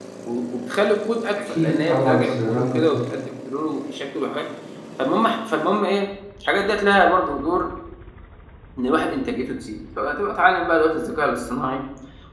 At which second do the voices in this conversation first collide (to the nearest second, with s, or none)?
2 s